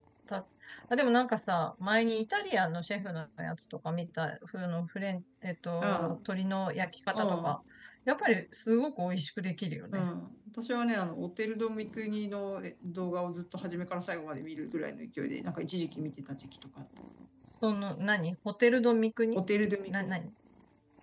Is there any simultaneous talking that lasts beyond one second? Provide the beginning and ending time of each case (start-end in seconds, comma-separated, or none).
none